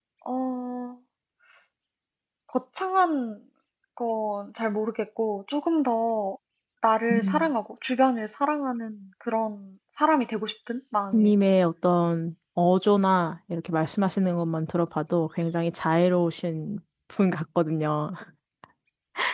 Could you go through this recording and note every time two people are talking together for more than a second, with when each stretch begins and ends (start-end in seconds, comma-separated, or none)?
none